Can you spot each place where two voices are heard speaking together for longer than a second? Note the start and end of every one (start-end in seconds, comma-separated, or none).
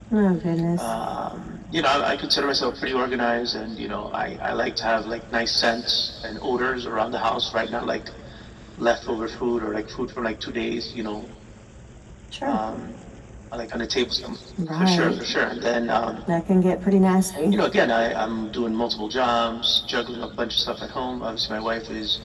none